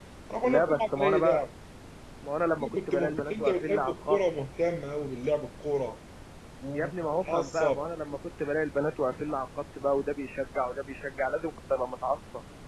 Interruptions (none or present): present